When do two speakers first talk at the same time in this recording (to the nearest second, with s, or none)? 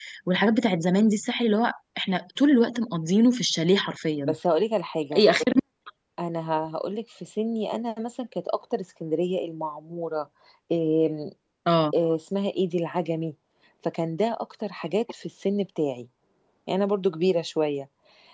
none